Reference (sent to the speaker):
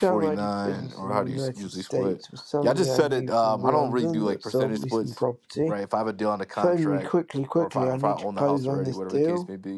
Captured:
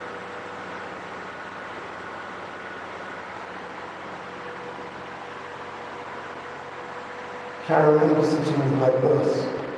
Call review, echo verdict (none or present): none